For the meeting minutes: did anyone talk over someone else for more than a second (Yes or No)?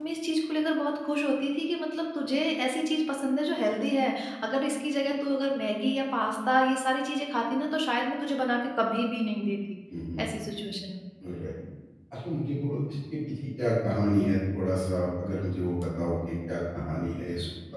No